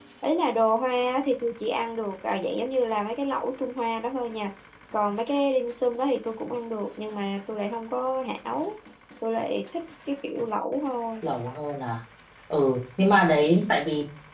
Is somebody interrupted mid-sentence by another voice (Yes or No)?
No